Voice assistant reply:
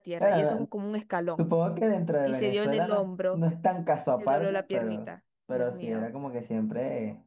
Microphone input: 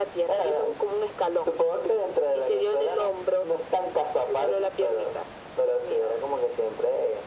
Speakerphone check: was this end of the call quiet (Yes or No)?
Yes